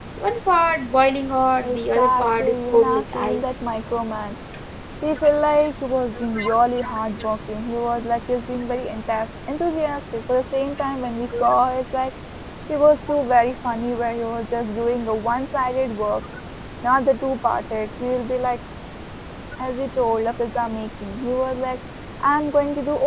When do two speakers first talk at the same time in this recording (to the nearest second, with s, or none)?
2 s